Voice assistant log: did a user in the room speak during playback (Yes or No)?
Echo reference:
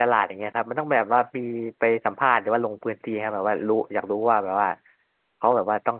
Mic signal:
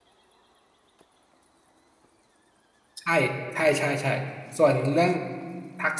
Yes